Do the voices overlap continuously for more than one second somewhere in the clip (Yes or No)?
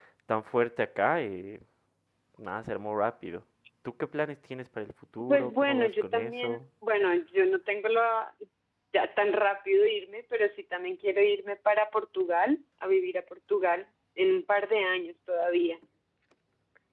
Yes